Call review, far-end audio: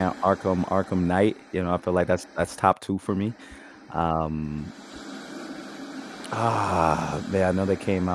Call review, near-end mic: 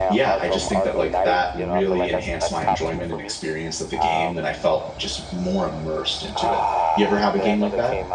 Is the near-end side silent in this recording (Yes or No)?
No